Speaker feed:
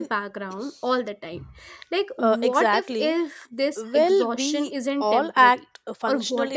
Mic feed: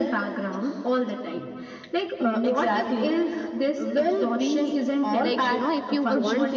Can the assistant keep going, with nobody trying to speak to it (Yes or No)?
No